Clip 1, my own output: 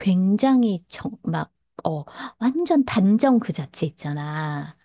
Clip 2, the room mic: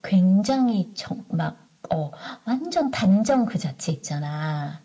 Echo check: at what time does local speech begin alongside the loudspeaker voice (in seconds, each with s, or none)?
none